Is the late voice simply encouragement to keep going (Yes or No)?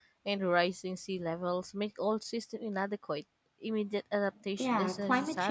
No